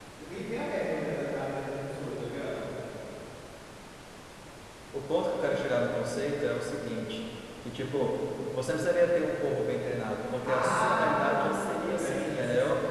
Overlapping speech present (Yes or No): Yes